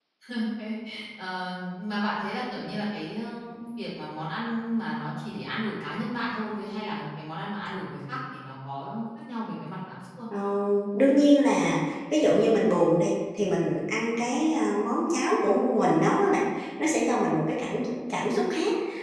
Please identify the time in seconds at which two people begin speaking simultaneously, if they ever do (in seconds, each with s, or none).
none